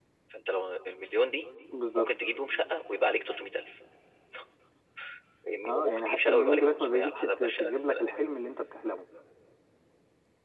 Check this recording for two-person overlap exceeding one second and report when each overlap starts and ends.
5.7-8.2

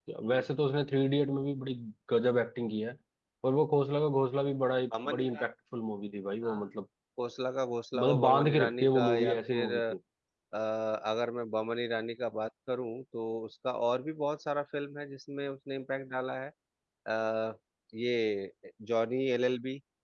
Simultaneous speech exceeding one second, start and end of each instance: 8.0-9.7

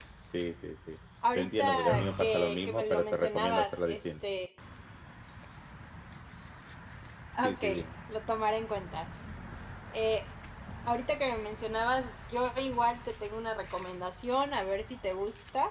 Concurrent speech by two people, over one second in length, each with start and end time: 1.4-4.0

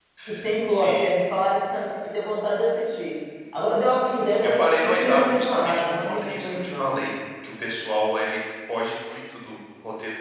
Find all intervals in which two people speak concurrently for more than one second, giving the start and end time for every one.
4.4-7.0

